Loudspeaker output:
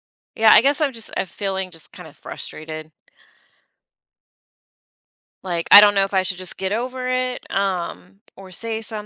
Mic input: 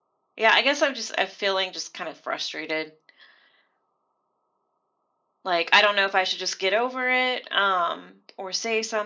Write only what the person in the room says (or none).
none